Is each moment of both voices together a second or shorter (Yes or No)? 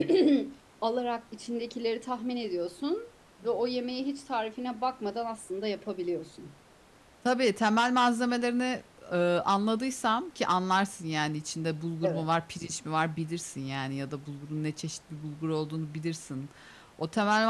Yes